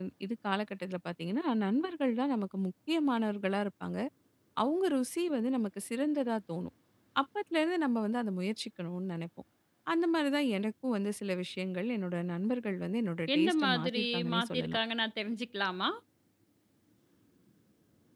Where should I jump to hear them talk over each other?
13 s

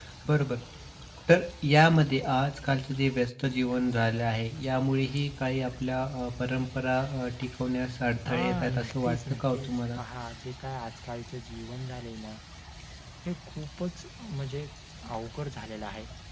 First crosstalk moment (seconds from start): 8 s

